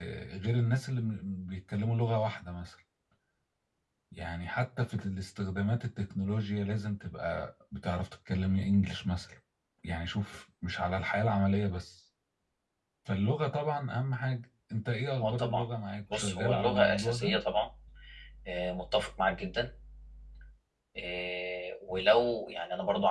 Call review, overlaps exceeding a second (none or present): present